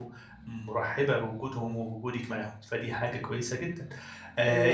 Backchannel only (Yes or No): Yes